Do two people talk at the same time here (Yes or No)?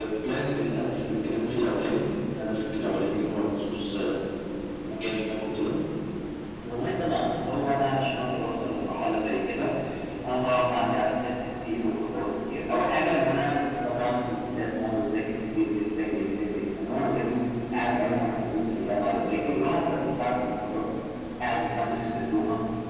No